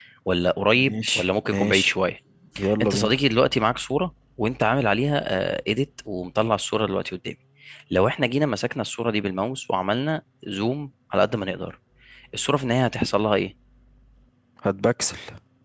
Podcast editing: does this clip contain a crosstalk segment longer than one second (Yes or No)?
Yes